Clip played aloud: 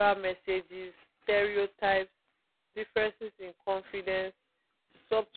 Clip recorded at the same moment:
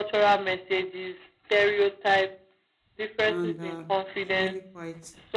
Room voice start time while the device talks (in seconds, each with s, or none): 3.3 s